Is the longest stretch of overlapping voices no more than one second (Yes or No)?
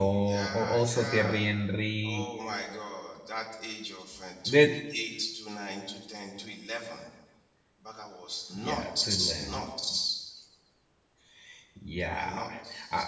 No